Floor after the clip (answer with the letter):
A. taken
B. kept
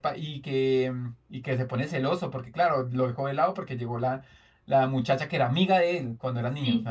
A